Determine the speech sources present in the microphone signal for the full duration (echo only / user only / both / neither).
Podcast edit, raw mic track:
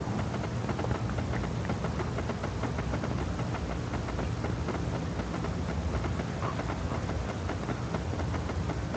neither